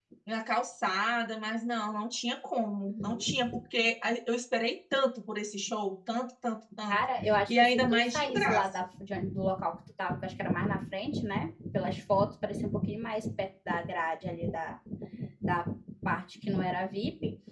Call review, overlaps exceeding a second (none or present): present